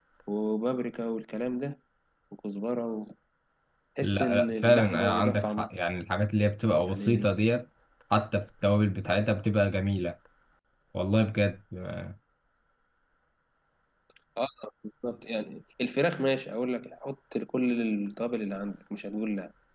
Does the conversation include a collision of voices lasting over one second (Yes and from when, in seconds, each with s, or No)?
Yes, from 4.0 s